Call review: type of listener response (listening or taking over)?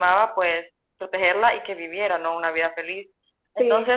listening